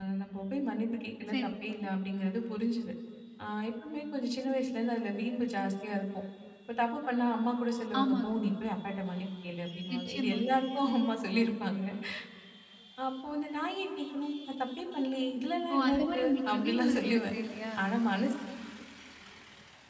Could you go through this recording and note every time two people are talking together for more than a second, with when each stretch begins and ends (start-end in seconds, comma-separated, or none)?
15.7-17.3